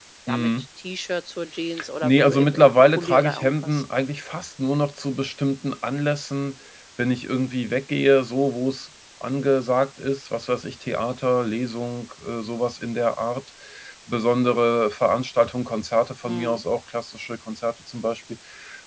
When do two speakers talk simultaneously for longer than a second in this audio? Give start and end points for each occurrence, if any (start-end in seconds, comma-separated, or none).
2.0-3.8